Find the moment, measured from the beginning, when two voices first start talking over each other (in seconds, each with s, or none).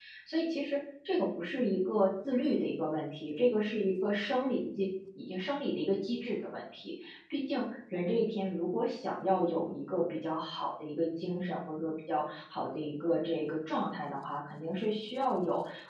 none